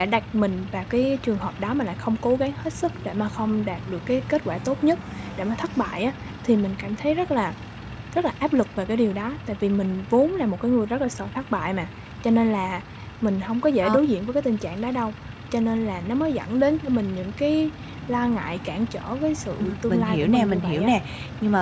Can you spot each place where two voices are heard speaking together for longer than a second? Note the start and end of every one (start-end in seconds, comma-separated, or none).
19.6-20.9